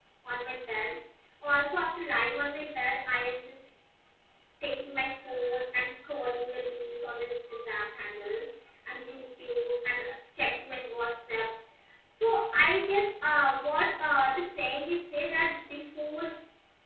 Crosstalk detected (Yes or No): No